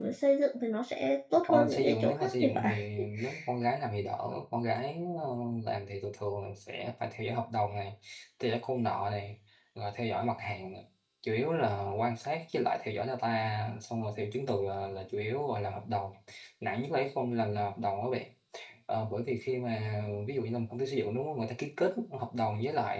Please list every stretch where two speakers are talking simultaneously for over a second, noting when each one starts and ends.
1.5-2.8

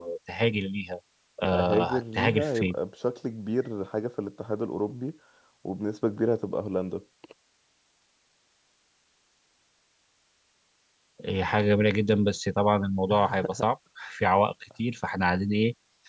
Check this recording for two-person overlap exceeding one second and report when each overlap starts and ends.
1.5-2.7

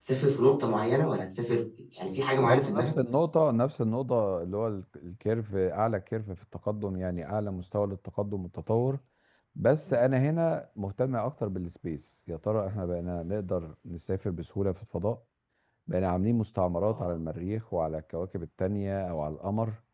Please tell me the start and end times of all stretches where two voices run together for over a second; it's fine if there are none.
none

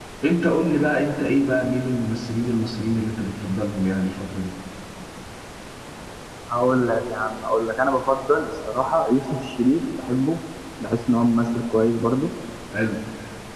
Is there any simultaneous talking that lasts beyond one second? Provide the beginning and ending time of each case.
none

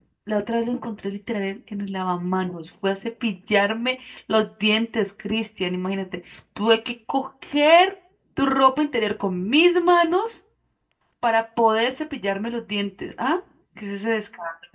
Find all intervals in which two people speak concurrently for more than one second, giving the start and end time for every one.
none

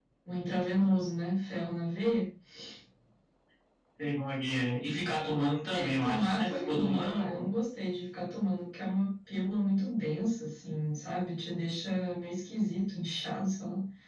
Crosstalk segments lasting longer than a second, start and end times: 5.7-7.5

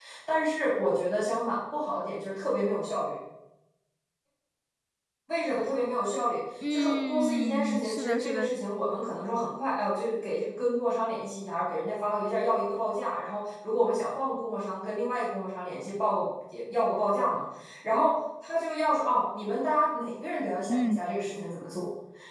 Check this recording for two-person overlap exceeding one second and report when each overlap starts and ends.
6.7-8.5

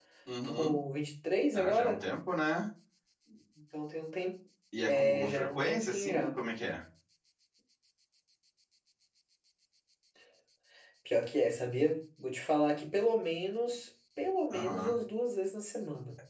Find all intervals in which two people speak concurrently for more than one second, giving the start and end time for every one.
4.9-6.4

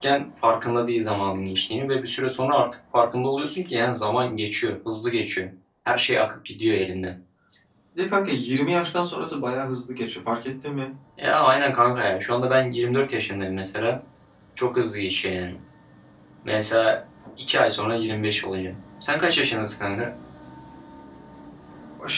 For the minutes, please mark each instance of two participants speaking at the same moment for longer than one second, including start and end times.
none

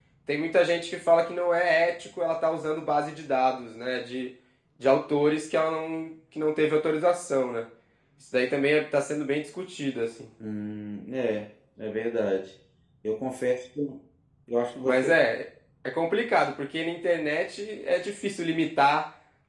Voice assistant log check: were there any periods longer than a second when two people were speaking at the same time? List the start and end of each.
none

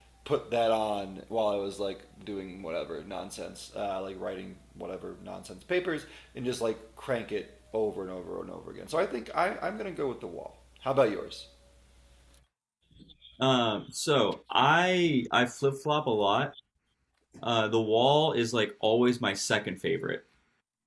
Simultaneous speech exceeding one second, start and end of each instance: none

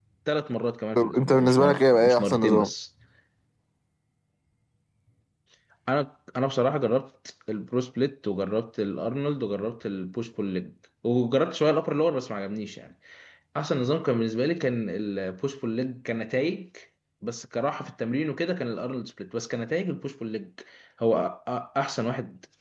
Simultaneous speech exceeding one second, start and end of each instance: 1.0-2.7

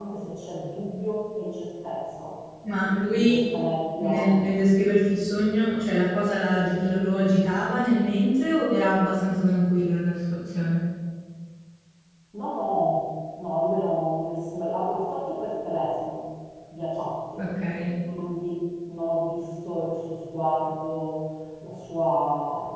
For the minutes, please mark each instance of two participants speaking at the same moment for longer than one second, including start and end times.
none

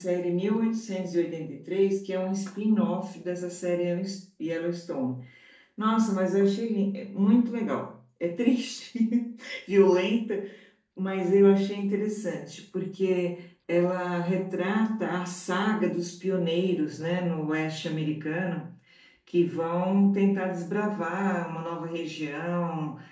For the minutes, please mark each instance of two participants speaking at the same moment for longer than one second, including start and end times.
none

